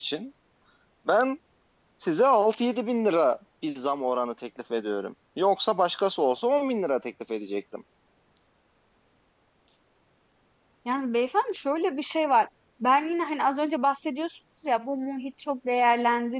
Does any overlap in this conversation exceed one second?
No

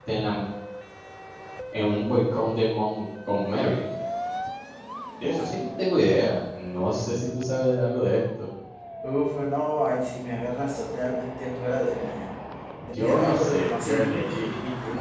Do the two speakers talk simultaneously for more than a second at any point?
Yes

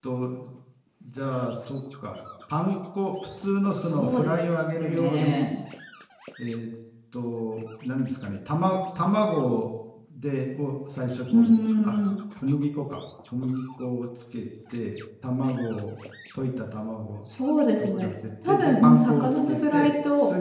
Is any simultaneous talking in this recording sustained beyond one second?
Yes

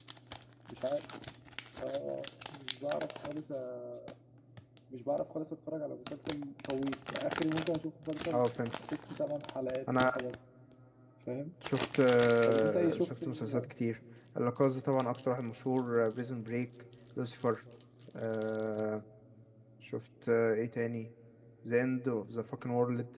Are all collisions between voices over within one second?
No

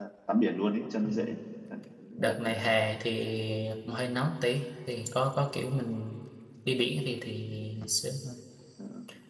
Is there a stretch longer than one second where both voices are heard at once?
No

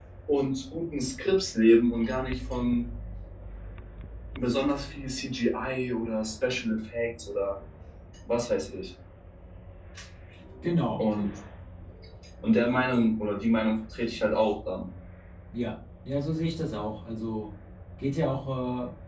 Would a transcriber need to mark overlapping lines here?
No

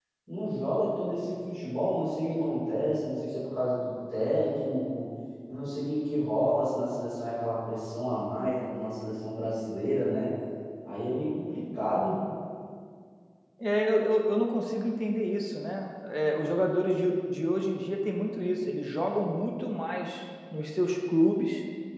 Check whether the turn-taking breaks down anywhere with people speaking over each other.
No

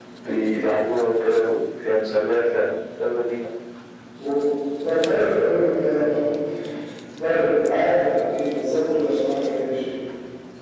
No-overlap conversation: Yes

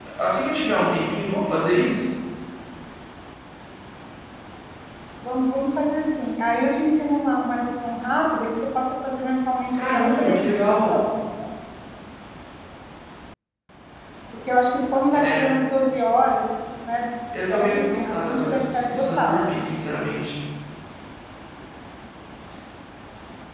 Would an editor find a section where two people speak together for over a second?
Yes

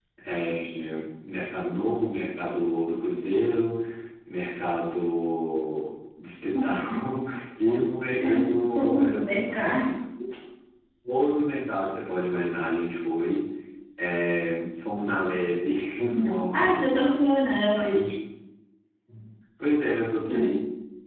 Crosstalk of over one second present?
Yes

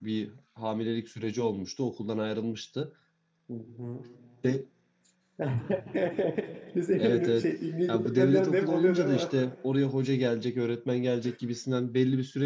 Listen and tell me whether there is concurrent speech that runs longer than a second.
Yes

